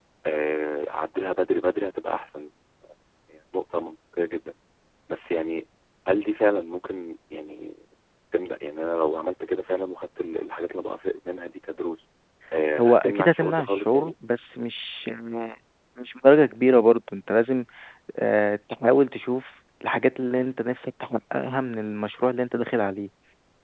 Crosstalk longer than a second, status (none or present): present